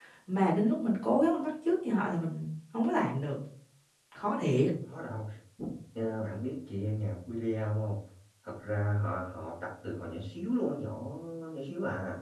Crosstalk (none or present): none